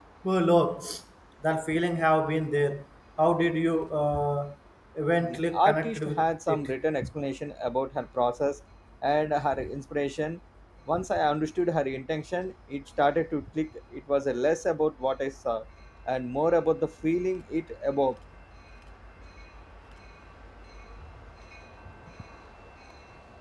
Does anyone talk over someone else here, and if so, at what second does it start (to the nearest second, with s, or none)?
5 s